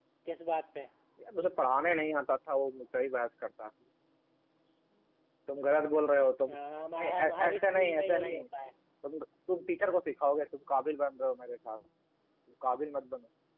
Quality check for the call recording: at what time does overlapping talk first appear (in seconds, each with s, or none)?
7.0 s